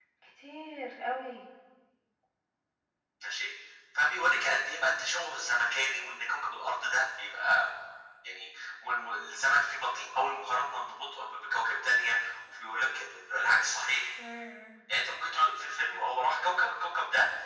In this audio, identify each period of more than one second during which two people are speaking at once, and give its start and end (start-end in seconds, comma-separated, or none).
none